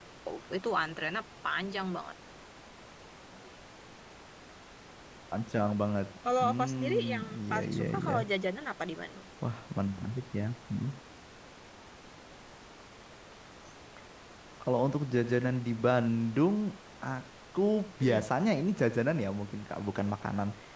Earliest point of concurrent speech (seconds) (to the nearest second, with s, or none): 6 s